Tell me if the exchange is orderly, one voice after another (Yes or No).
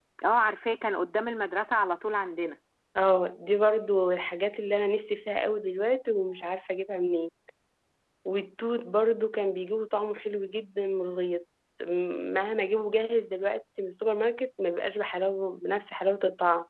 Yes